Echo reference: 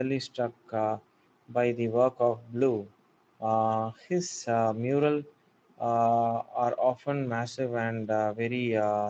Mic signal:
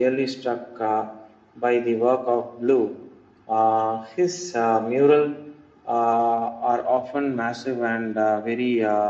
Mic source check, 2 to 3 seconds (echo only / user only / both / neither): echo only